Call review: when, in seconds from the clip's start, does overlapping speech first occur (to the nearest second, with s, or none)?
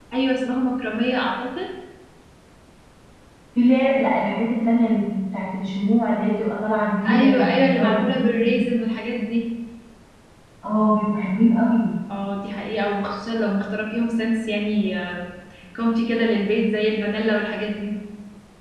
7 s